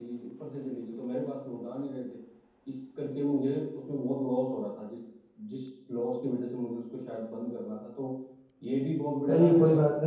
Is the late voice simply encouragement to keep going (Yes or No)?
No